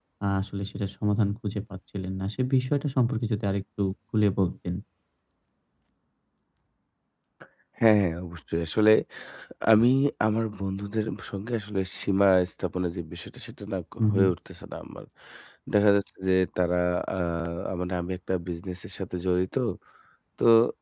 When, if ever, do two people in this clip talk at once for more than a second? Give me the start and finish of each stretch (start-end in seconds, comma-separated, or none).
none